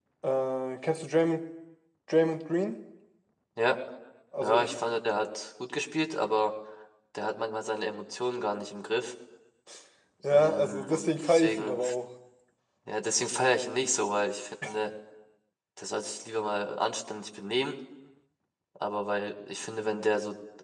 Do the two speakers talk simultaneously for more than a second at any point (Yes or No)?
Yes